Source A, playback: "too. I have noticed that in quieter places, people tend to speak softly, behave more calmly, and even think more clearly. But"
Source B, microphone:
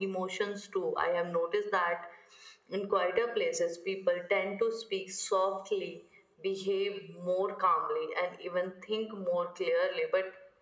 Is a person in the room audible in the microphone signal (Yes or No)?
No